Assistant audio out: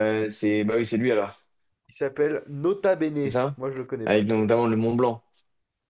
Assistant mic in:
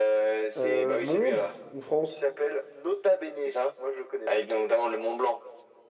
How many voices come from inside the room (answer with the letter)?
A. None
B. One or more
B